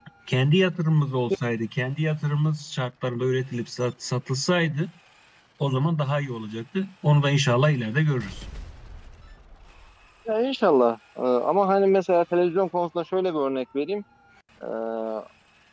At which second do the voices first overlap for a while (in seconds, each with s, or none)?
none